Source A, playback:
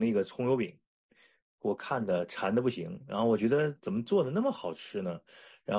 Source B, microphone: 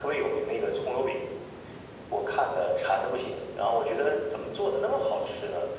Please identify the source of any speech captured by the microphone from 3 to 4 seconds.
echo only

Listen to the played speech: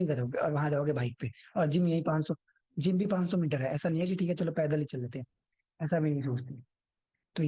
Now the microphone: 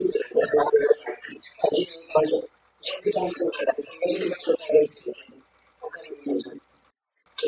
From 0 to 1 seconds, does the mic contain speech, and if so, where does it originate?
echo only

